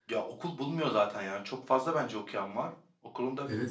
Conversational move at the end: taking over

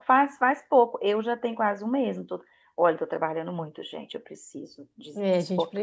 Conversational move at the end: taking over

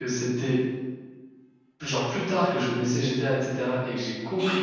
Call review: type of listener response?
listening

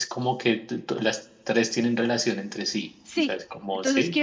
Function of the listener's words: taking over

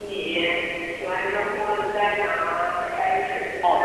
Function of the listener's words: taking over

